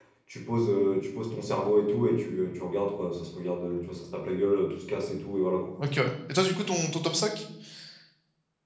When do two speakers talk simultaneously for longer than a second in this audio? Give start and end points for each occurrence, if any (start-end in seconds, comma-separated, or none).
none